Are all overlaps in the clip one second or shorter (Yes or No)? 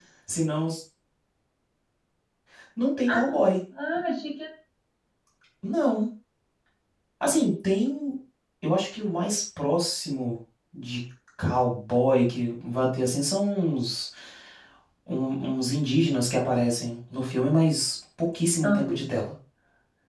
Yes